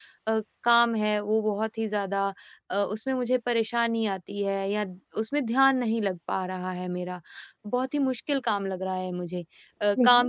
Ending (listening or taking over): listening